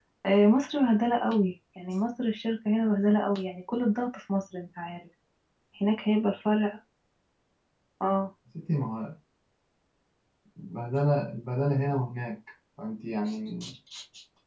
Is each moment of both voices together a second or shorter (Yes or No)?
Yes